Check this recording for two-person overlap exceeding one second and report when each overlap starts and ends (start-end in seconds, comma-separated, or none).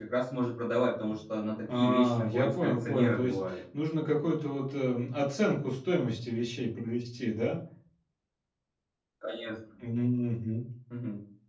1.7-3.4